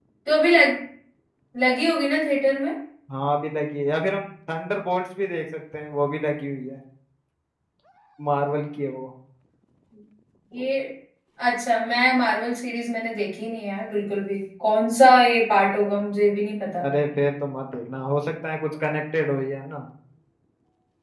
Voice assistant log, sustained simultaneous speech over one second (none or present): none